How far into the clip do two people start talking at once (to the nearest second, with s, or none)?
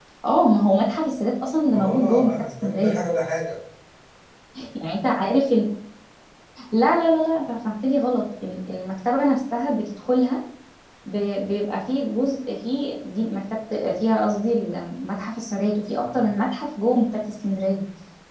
2 s